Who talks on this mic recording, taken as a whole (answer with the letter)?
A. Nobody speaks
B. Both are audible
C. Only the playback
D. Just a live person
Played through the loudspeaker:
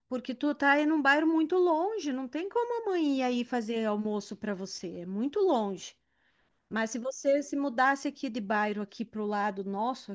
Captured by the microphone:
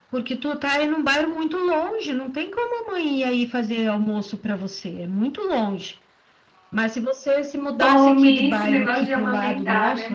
B